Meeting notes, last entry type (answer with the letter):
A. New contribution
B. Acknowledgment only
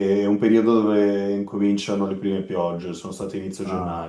A